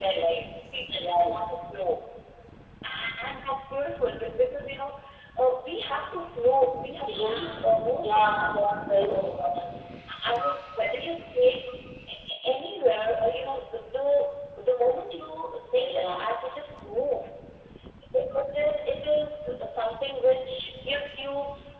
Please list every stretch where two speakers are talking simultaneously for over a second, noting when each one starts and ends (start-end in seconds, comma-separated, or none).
none